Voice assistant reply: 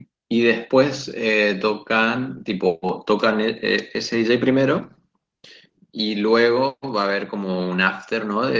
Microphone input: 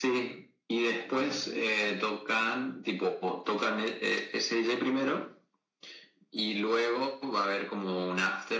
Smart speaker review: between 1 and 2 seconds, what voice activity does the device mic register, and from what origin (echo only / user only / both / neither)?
both